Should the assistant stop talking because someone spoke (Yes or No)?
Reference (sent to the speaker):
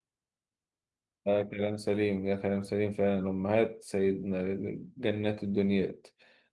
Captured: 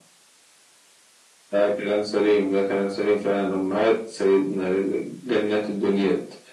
No